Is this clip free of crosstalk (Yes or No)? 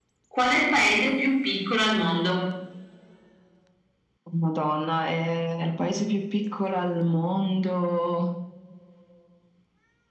Yes